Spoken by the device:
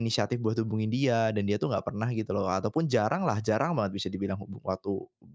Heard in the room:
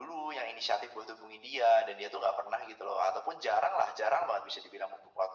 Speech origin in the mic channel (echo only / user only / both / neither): echo only